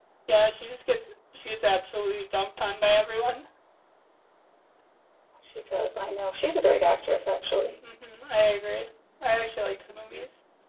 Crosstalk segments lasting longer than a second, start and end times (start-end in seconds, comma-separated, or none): none